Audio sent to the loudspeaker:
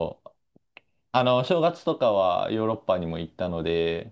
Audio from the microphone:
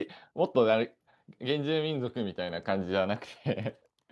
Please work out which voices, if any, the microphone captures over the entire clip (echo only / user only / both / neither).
user only